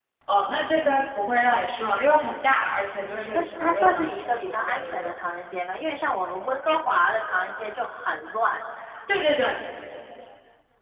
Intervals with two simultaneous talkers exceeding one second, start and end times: 3.1-5.1

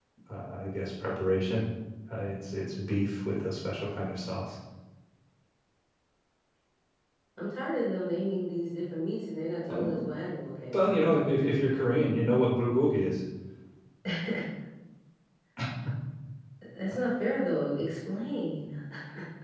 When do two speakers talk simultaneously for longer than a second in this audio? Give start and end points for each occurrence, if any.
none

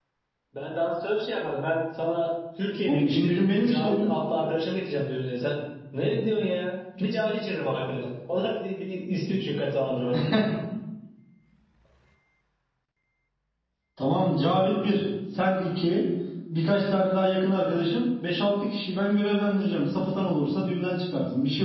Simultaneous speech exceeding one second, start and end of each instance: 2.9-4.1

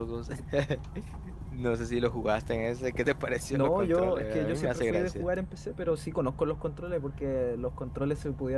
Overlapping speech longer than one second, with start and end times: 3.5-5.3

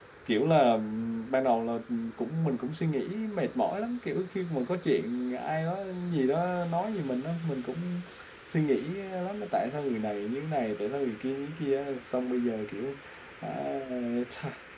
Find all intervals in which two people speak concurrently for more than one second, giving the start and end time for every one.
none

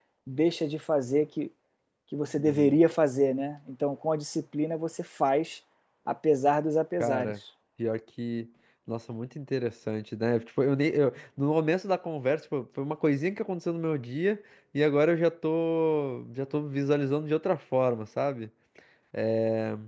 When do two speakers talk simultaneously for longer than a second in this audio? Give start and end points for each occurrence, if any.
none

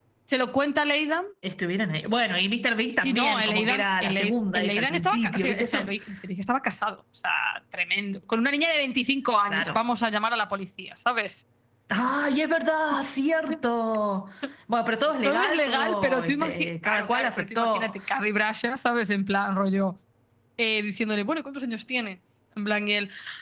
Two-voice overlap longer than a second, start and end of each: 3.0-5.9, 15.2-17.9

